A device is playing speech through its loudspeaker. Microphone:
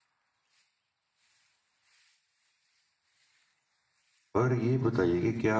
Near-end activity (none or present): present